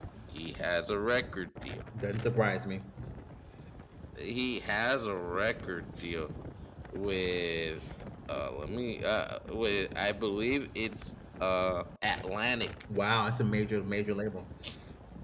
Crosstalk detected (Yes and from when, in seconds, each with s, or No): No